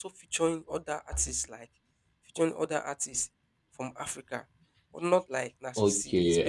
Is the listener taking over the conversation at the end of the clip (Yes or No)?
Yes